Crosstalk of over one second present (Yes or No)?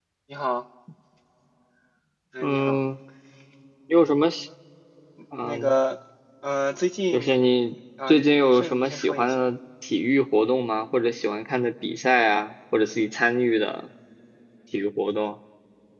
Yes